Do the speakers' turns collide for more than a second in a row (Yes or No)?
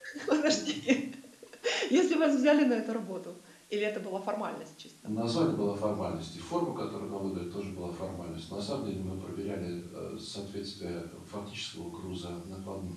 No